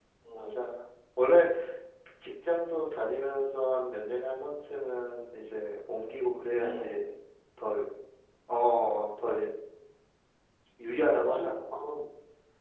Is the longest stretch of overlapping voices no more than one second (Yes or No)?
Yes